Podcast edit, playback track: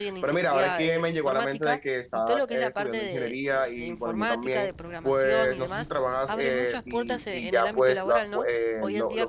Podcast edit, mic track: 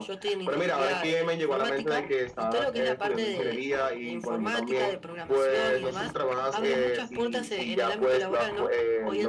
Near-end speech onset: none

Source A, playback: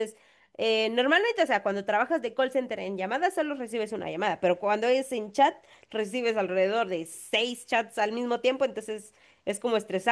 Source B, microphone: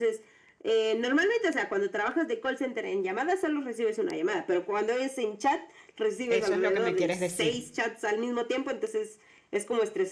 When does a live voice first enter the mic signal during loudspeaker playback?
6.3 s

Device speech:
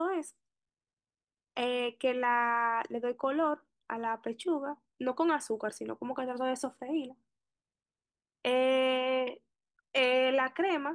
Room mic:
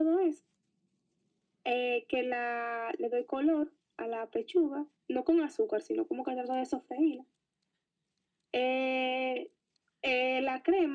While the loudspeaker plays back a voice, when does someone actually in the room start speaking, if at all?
none

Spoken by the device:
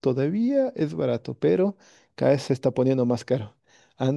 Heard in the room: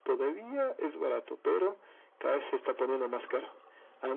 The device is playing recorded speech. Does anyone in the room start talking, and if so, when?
none

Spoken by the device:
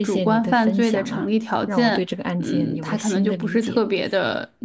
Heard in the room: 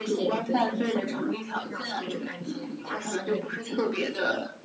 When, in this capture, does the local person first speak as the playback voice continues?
none

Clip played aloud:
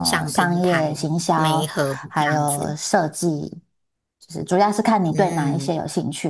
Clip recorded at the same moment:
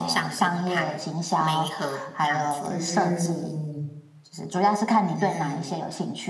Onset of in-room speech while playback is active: 2.7 s

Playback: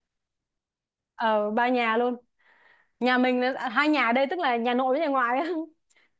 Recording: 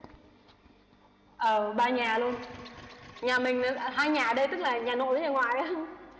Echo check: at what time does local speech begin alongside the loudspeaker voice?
none

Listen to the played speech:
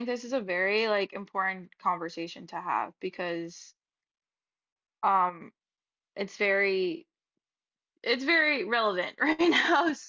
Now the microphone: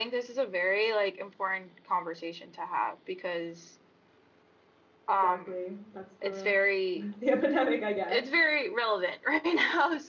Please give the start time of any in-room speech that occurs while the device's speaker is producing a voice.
5.1 s

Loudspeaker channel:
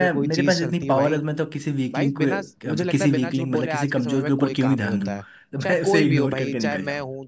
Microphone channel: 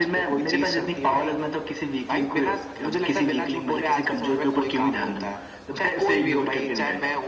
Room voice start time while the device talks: none

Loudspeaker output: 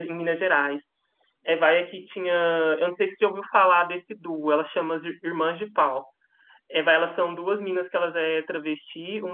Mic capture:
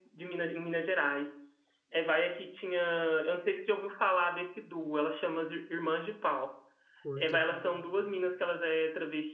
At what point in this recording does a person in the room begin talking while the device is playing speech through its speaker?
7.0 s

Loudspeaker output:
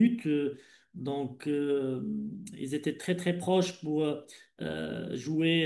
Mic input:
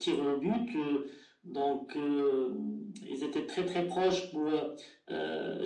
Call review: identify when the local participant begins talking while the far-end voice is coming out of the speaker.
none

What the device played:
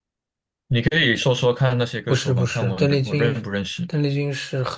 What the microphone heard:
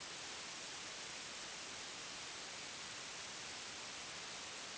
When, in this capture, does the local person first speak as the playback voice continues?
none

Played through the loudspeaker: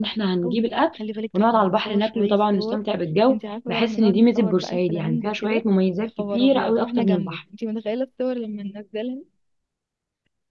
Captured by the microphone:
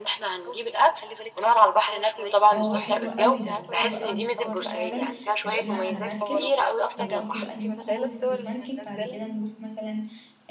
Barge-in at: 2.5 s

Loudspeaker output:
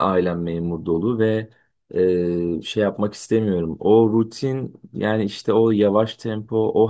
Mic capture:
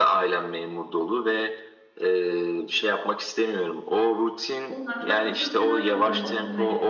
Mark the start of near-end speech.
4.7 s

